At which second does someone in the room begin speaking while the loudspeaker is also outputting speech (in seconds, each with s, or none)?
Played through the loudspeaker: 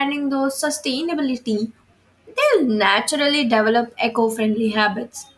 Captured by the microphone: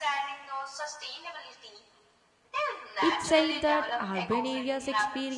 3.0 s